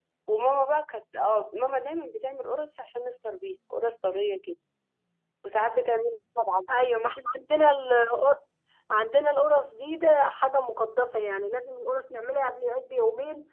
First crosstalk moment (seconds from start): none

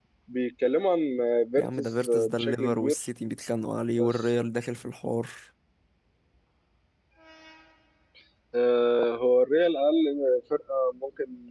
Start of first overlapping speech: 2 s

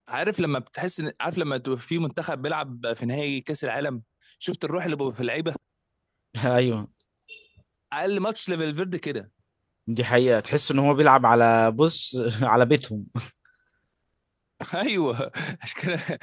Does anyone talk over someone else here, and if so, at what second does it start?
none

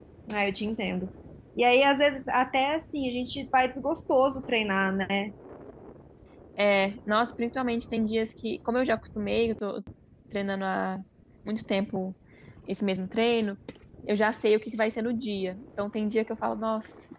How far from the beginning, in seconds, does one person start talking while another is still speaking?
none

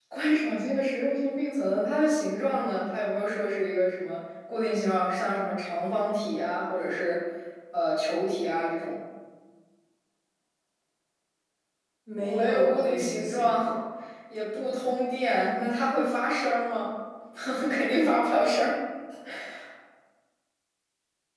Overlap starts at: 12 s

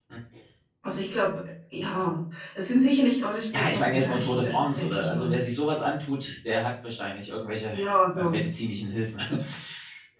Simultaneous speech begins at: 4 s

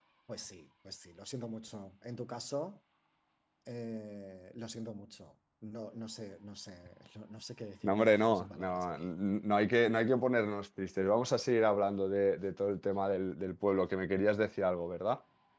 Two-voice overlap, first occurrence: 8 s

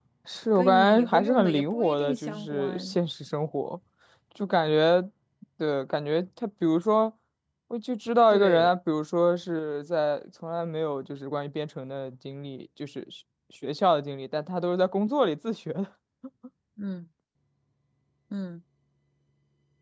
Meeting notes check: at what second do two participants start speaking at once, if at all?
1 s

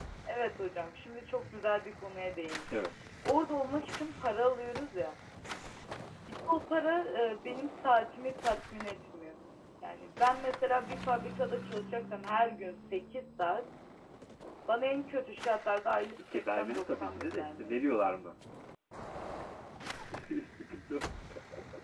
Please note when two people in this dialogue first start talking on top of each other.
16 s

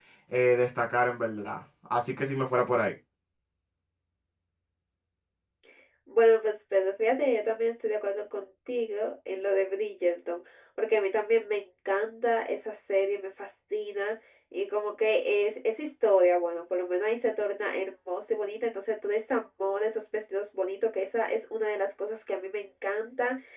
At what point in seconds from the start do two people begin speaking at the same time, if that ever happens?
none

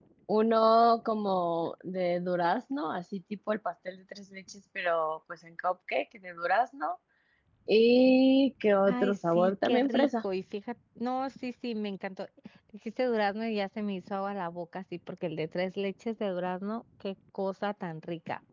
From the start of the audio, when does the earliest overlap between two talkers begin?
9 s

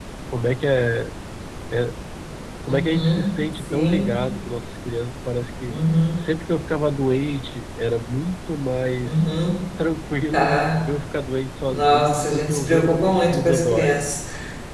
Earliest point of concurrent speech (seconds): 3 s

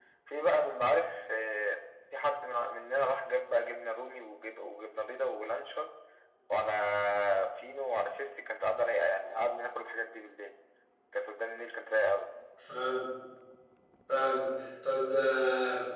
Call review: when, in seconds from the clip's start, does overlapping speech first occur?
none

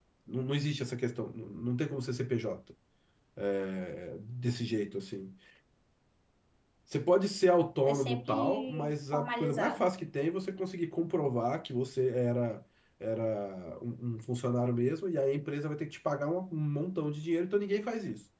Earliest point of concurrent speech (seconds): 8 s

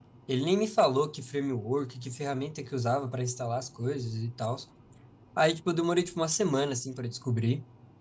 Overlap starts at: none

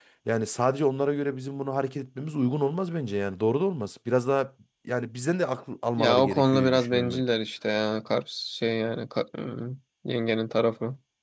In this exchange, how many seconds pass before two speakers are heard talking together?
6 s

